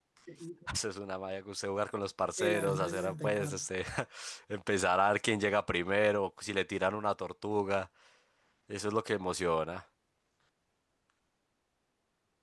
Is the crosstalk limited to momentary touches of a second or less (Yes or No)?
No